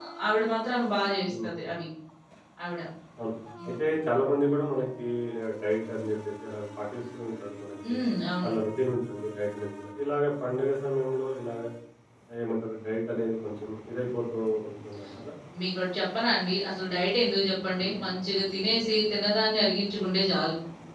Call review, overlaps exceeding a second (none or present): none